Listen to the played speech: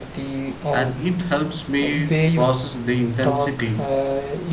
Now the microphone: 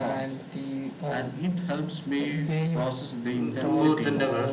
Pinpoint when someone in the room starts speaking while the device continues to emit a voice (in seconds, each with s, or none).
3.3 s